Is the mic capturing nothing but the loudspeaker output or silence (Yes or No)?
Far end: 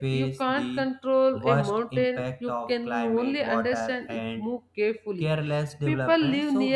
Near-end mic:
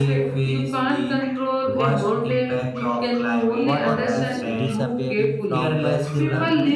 No